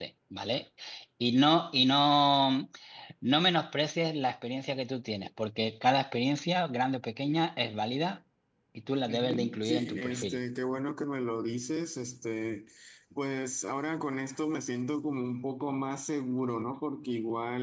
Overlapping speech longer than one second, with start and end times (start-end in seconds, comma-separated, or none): 9.0-10.4